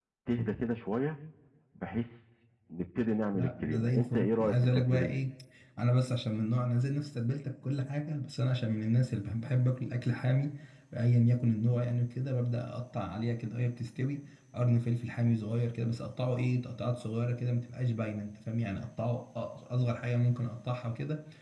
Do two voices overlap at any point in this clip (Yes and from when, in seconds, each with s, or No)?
Yes, from 3.3 s